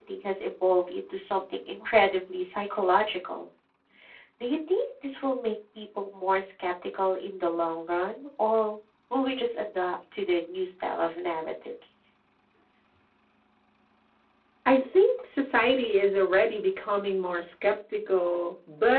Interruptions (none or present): none